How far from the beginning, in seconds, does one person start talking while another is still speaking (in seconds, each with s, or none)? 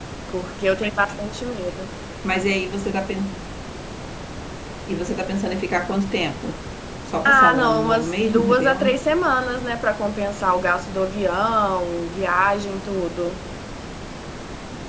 7.2 s